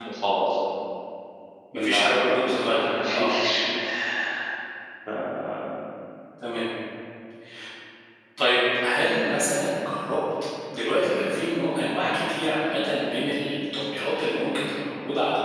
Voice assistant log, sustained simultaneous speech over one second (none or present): present